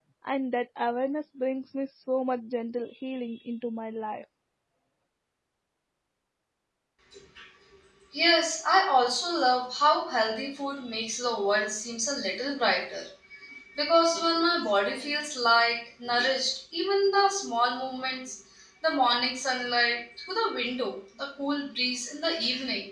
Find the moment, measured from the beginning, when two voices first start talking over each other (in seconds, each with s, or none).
none